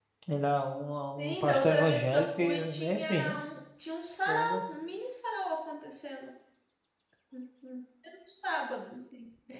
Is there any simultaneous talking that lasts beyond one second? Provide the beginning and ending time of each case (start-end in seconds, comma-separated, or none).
1.2-3.4